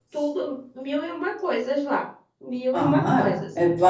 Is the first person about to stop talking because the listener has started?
Yes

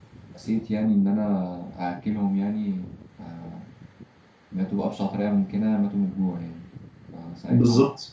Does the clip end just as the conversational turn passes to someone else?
No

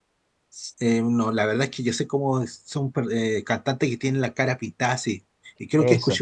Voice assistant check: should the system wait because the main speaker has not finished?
Yes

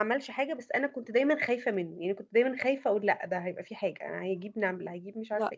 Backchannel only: No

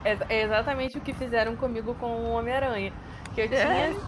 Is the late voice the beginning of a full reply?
No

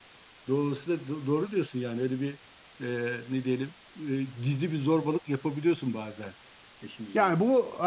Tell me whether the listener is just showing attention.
No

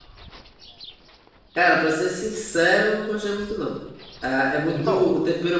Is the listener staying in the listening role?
Yes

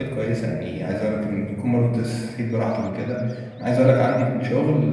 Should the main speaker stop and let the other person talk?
No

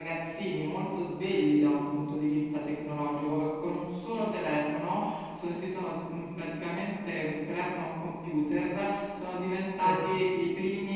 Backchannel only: Yes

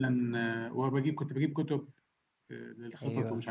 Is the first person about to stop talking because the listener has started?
No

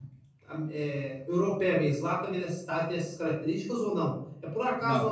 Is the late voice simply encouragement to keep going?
Yes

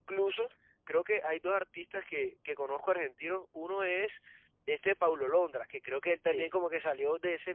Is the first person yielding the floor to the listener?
No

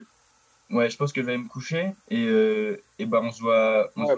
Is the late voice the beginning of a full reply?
Yes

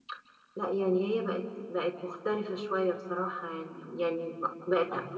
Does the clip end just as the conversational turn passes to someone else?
No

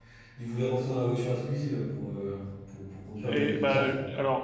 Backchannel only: No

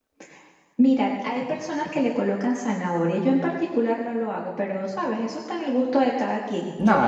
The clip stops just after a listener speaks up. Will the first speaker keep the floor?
No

